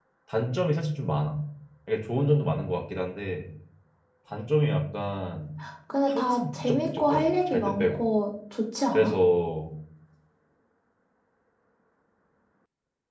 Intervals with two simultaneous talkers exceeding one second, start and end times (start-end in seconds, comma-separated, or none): 6.1-8.0